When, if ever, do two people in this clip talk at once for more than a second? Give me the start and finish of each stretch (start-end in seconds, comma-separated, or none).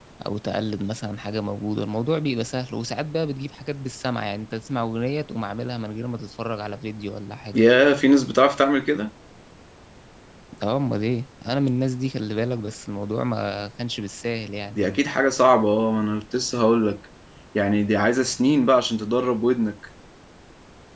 none